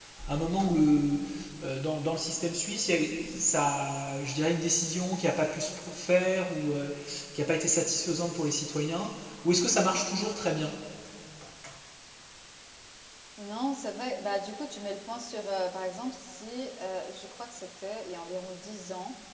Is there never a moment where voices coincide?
Yes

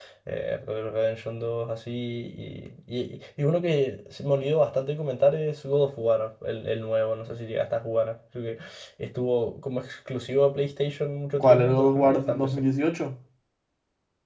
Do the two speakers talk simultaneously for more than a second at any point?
Yes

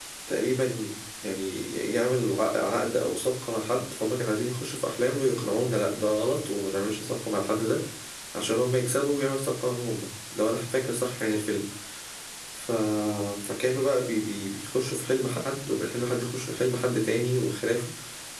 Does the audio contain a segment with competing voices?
No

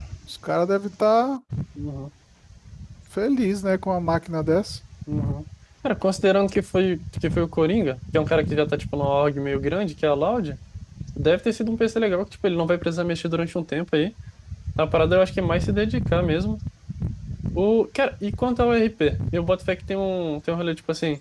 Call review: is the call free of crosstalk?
Yes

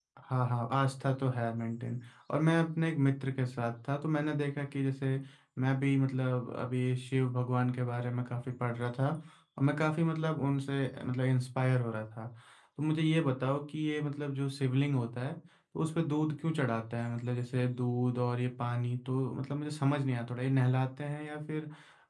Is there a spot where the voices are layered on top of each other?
No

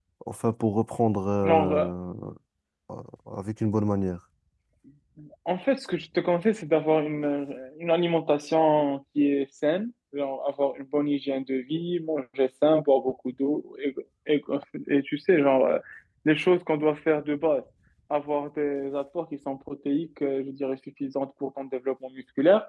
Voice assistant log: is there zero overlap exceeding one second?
Yes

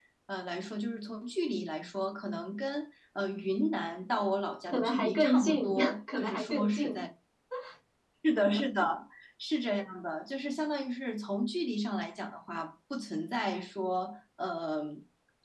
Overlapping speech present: Yes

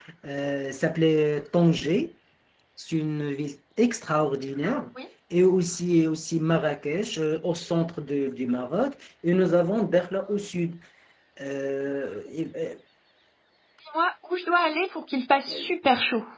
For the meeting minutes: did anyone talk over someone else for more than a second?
No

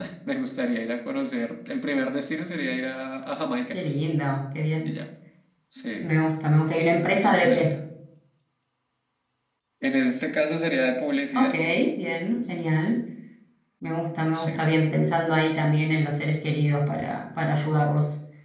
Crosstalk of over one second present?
No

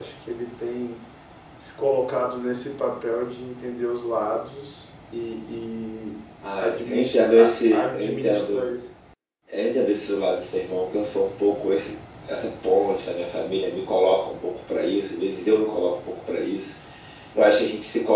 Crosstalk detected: Yes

